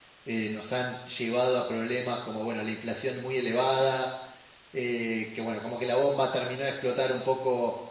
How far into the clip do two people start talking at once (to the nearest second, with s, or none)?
none